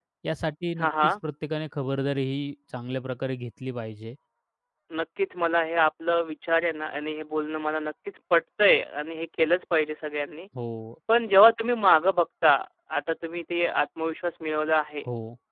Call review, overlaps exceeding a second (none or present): none